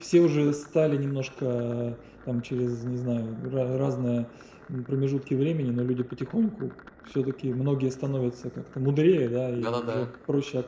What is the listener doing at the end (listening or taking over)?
listening